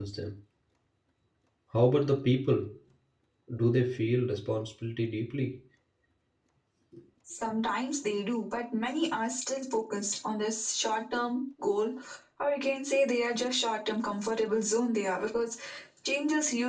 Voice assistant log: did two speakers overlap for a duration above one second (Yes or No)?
No